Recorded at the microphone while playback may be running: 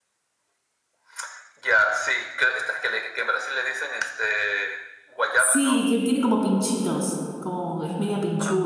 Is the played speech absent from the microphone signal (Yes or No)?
No